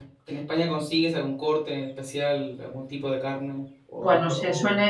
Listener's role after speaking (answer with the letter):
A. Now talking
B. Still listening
A